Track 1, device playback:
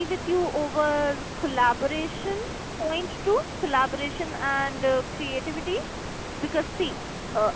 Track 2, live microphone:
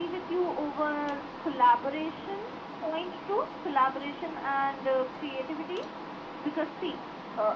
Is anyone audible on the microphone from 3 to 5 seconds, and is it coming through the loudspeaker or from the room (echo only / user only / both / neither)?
echo only